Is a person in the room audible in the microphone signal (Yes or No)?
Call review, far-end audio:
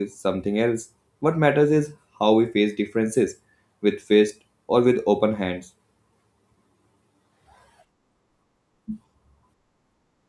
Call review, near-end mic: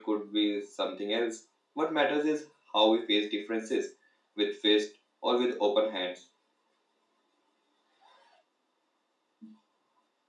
No